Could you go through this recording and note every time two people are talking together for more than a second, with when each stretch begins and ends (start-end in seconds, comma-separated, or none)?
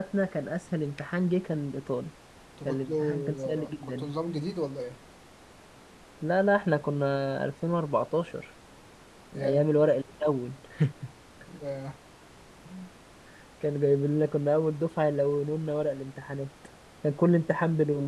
2.6-4.1